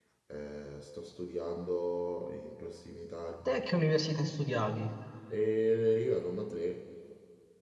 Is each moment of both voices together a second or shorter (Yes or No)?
Yes